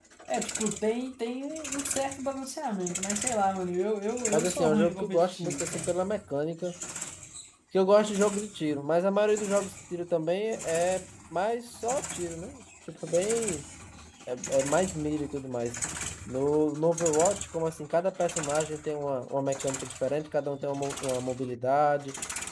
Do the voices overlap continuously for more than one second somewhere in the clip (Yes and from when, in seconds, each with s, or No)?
Yes, from 4.3 s